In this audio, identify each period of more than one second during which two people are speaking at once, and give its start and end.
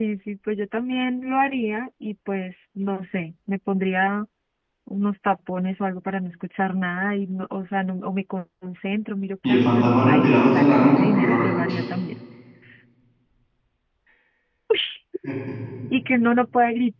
9.5-11.8

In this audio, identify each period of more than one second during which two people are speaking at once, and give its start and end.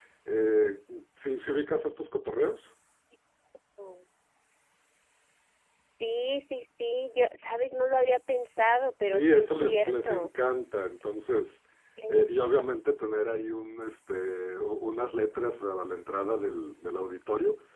9.1-10.3

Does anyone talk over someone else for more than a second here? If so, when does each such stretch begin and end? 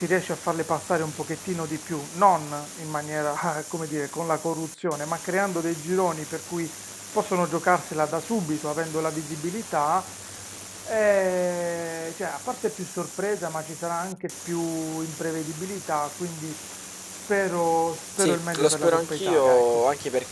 18.2-19.8

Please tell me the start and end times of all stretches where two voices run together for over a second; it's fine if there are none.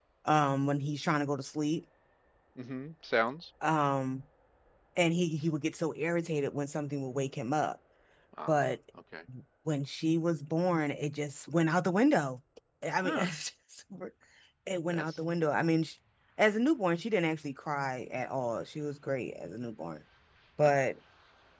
none

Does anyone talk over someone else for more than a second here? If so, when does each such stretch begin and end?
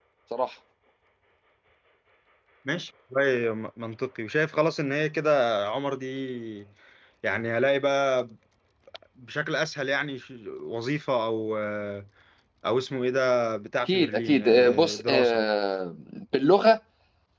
13.9-15.4

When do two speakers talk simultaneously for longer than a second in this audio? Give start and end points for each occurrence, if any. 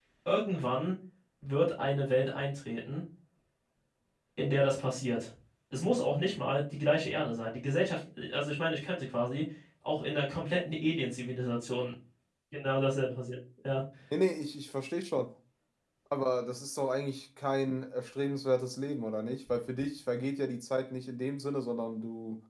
none

